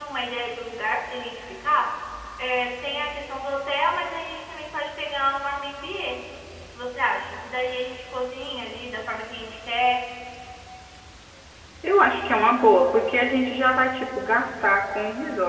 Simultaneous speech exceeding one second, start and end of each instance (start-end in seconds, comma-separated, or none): none